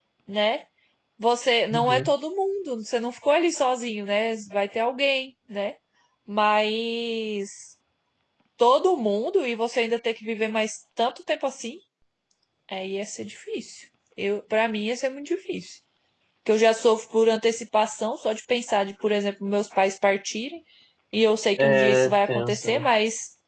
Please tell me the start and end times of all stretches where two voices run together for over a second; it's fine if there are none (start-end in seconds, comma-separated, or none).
21.6-22.8